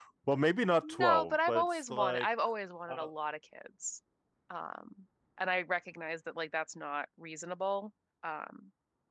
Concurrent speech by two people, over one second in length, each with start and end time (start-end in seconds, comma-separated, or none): 0.8-2.3